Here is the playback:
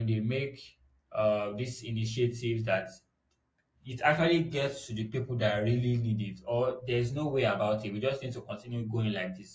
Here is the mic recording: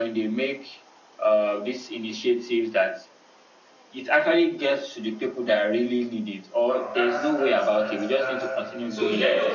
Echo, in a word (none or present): present